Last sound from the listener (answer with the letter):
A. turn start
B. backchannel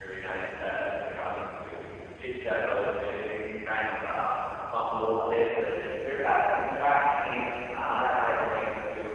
B